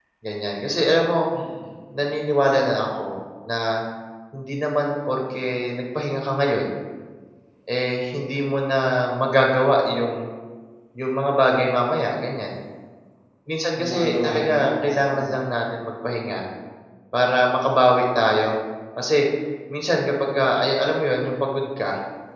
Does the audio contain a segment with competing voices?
Yes, from 13.8 s

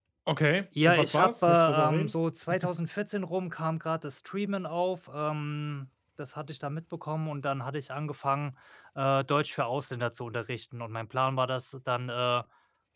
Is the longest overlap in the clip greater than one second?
Yes, from 0.9 s

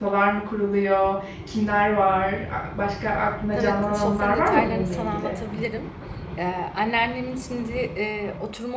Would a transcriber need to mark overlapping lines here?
Yes, from 3.5 s

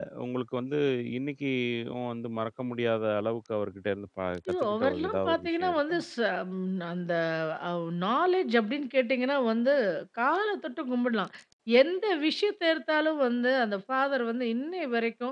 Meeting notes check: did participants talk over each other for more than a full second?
Yes, from 4.5 s

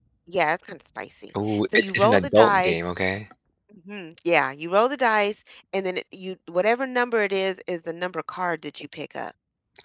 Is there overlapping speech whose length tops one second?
Yes, from 1.3 s

